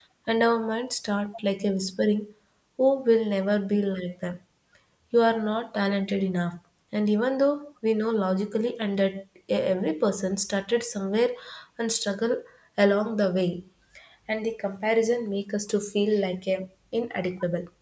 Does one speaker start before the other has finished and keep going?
No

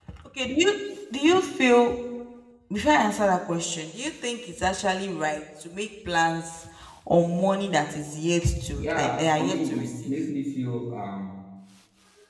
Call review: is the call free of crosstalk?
No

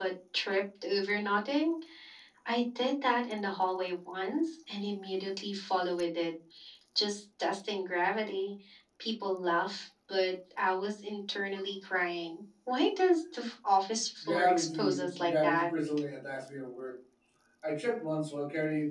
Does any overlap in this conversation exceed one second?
Yes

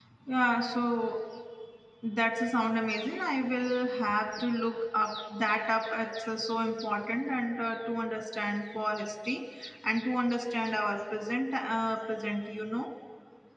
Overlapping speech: No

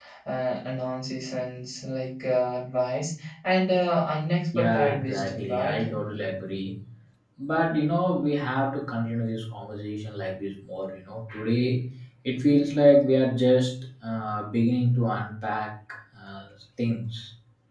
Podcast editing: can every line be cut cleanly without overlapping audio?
No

